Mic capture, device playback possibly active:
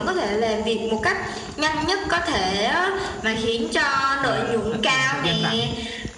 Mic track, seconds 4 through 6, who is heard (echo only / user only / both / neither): both